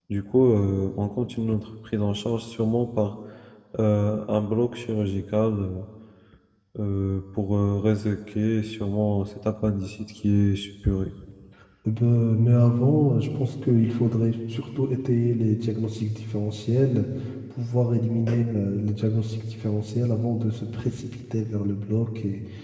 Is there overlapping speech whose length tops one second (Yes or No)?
No